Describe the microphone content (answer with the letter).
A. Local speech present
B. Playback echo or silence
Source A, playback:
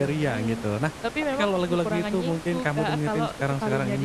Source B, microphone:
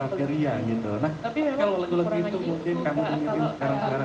A